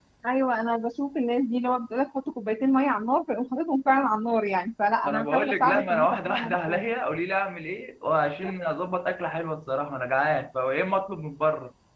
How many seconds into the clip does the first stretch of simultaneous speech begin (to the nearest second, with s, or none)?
5 s